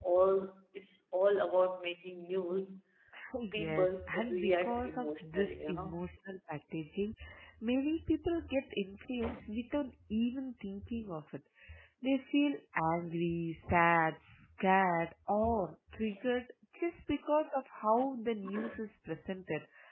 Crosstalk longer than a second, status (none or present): present